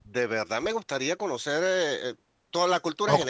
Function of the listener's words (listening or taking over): listening